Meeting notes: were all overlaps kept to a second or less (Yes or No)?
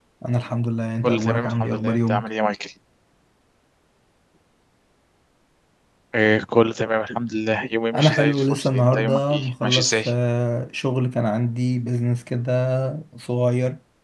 No